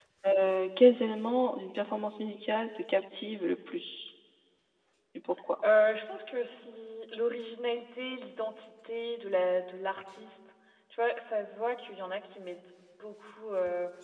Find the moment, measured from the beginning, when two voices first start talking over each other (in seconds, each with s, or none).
none